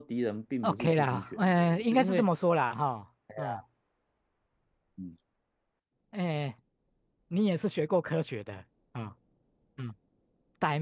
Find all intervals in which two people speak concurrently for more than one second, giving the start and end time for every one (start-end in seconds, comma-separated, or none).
0.6-2.3